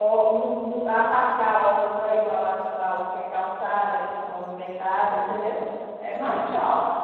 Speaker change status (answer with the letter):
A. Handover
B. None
B